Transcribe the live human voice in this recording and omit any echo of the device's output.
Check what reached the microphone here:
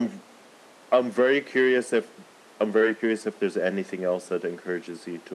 none

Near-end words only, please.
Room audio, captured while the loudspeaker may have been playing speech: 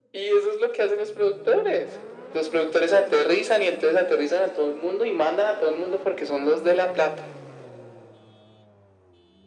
none

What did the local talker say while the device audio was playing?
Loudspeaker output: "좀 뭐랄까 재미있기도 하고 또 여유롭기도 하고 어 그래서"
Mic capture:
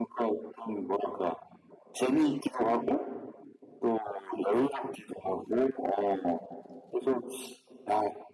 none

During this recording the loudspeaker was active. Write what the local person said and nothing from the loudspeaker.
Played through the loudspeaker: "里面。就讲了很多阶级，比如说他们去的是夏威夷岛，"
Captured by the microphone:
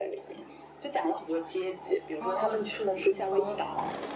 哦，吐吐槽

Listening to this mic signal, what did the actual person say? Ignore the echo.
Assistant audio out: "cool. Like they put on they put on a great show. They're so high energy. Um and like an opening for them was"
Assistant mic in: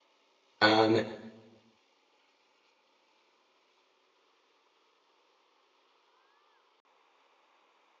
Um

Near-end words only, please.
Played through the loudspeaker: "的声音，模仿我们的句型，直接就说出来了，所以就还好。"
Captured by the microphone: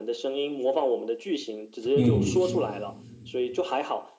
嗯，

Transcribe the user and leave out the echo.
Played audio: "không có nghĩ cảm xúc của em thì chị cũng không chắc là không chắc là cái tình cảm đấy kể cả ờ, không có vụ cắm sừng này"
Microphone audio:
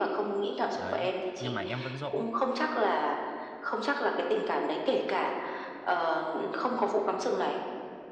đấy nhưng mà em vẫn dỗ

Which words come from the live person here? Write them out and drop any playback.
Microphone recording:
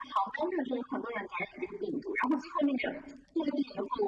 none

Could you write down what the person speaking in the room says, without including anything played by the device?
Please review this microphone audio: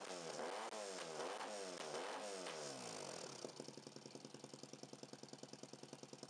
none

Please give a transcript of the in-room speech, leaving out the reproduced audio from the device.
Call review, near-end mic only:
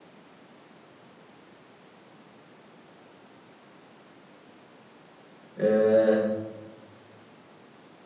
آه

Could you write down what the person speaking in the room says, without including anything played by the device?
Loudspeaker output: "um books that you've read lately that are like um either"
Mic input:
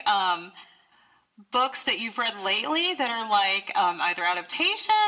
none

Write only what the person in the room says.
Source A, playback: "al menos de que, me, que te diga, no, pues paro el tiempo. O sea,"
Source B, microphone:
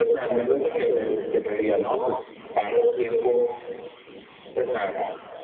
none

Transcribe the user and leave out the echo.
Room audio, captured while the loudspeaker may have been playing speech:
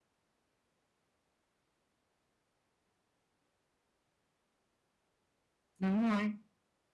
đúng rồi.

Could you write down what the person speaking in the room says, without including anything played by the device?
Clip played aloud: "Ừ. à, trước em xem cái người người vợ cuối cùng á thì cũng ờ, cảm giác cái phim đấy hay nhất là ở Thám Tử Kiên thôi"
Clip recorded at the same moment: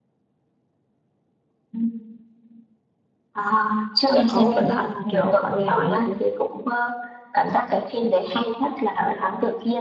Xong có một đoạn mà kiểu mọi người hỏi là đứa,

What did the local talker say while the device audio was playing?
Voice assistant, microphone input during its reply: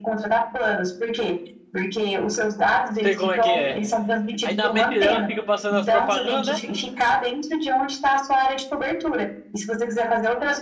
Sei como é que é. Aí na mente dela fica passando as propagandas, né?

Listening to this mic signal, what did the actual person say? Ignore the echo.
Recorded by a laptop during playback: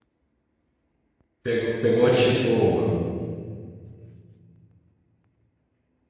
Pegou, pegou tipo

